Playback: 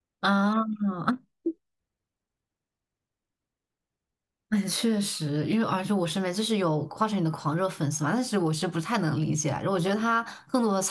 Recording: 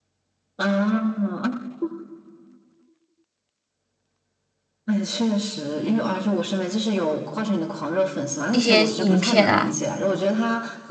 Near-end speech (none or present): present